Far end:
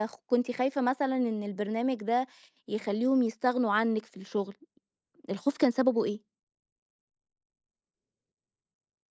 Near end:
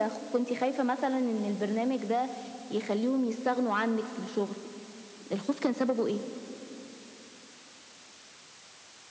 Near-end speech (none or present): none